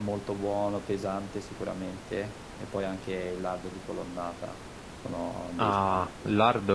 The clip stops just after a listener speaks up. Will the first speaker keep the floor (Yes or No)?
No